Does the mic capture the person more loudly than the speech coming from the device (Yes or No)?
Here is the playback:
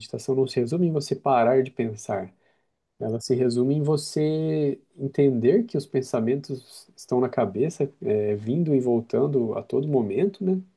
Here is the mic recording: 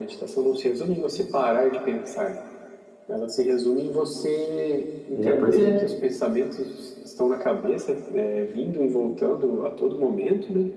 Yes